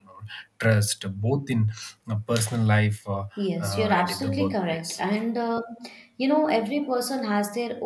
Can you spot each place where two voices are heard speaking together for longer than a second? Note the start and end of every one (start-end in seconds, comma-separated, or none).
3.6-5.0